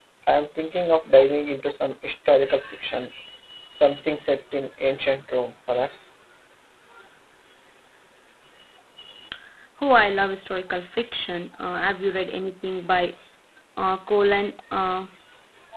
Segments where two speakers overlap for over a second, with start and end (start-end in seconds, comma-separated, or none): none